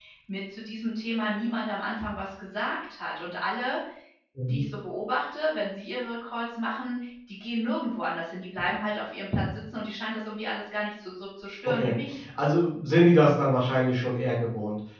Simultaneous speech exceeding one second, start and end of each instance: none

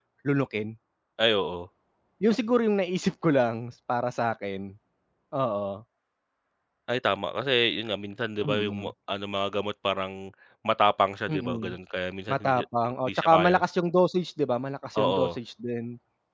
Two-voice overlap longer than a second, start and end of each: 12.3-13.5

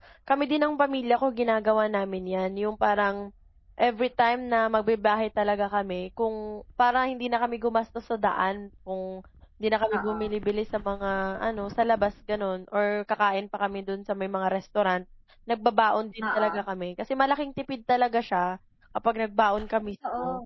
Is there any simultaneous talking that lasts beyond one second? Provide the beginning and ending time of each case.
none

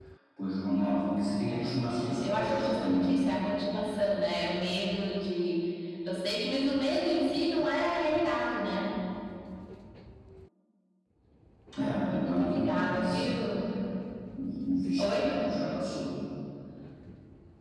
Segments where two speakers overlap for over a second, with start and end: 1.5-3.1, 11.8-13.2

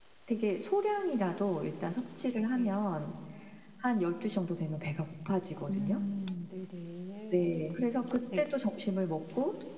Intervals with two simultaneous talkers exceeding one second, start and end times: none

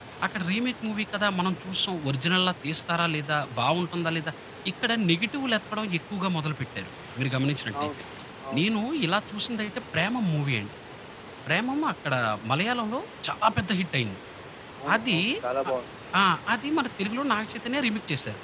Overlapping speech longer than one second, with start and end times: none

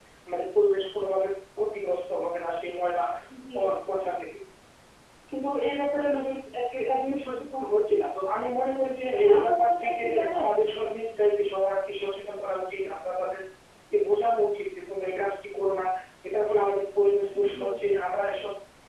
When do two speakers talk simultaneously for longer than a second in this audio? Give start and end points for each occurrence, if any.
9.2-10.5

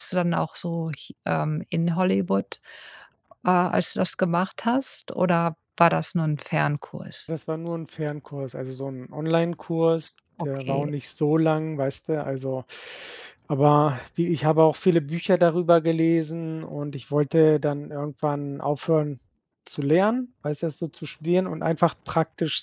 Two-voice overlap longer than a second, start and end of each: none

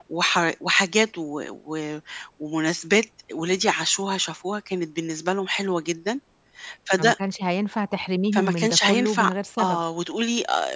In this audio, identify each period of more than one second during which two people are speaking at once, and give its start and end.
8.3-9.8

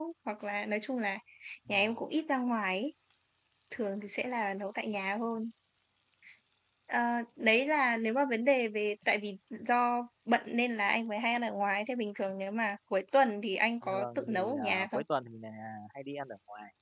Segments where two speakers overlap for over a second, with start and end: 13.8-15.0

